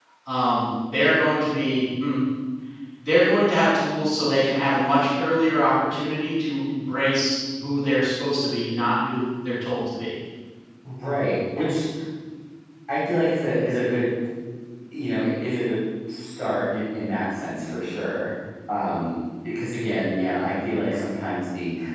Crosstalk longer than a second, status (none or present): none